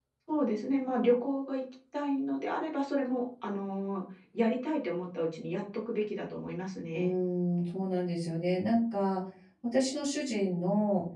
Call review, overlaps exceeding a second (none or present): none